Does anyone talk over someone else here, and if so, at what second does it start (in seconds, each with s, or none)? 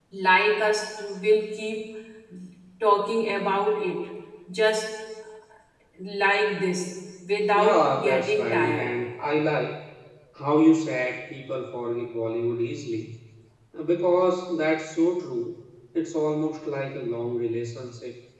7.5 s